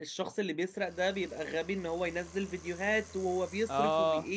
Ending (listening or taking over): listening